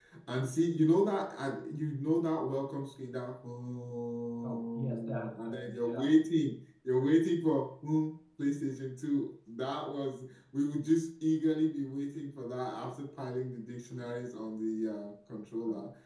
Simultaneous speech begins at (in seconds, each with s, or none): 4.4 s